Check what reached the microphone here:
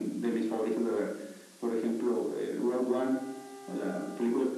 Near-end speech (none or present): none